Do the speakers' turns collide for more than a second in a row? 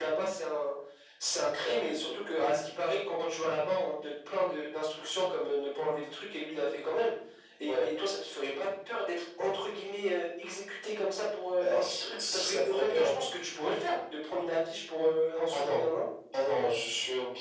Yes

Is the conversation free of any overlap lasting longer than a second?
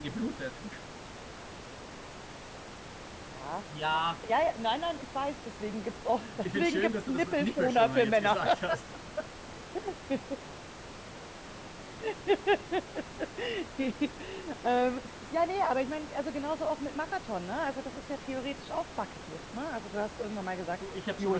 No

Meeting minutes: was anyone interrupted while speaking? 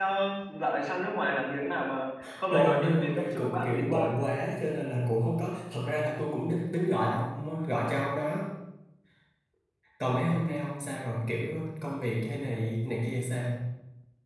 Yes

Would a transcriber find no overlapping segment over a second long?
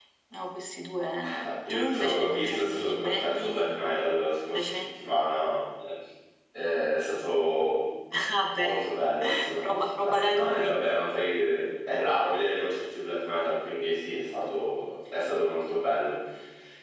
No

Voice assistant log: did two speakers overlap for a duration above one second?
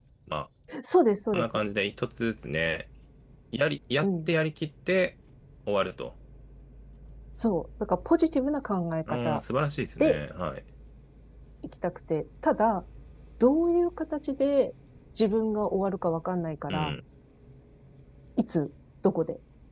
No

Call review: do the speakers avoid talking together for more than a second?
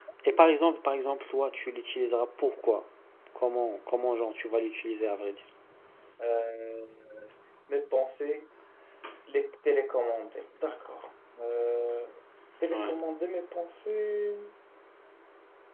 Yes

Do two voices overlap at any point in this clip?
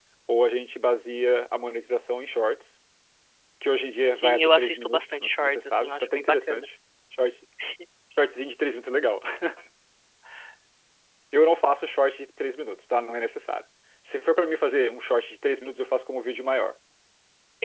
Yes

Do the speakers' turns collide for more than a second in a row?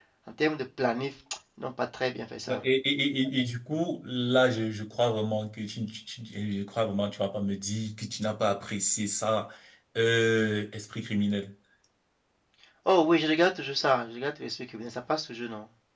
No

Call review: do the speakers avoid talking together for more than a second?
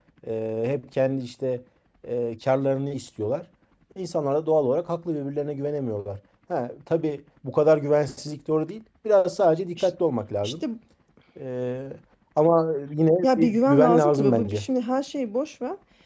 No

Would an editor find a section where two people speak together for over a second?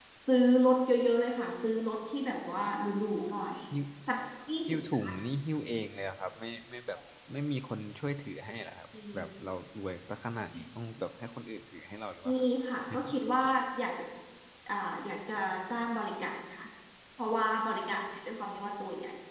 No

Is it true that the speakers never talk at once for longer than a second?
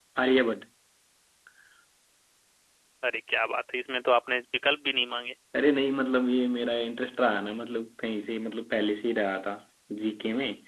Yes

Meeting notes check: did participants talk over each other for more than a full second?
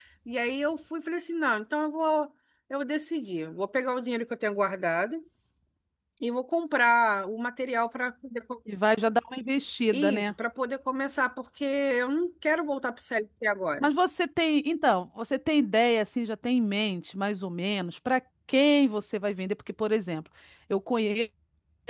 No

